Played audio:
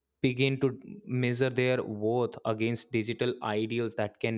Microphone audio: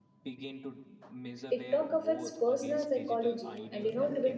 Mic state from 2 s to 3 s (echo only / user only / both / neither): both